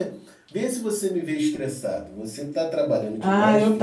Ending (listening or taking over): taking over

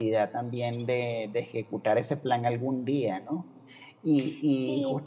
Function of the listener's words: listening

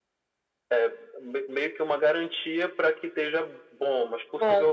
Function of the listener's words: listening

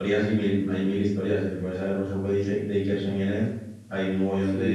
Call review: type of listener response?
listening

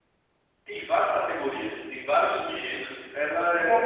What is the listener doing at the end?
taking over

